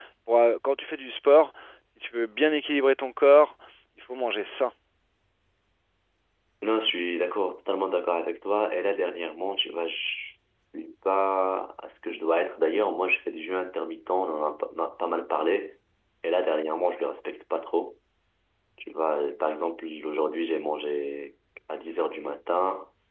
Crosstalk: none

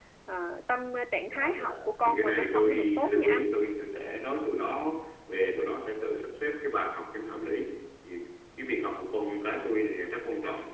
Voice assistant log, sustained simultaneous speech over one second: present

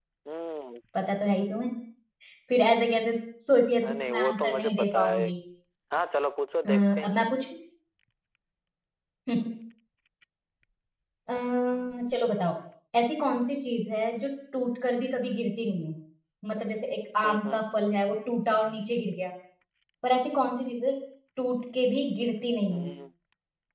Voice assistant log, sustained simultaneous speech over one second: present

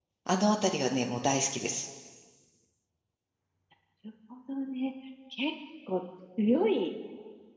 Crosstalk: none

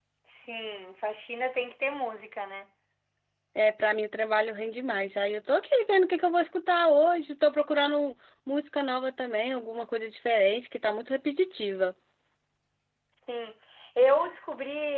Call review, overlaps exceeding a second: none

